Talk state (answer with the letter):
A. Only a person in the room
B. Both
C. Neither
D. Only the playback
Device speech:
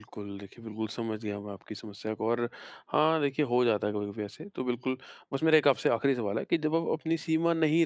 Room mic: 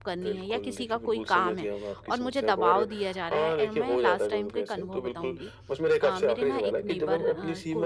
B